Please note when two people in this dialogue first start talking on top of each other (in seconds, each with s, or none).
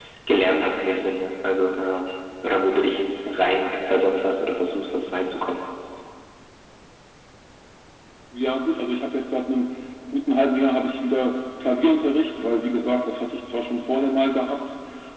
none